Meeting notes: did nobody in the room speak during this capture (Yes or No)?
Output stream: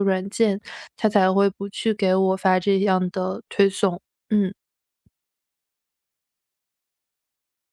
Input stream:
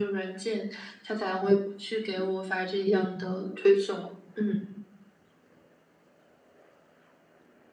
Yes